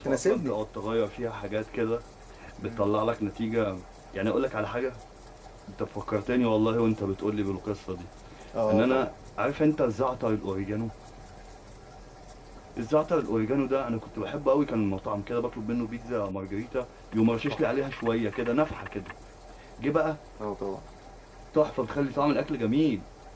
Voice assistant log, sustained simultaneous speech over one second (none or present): none